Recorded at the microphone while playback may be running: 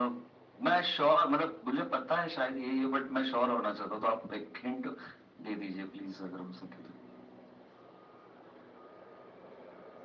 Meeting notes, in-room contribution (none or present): none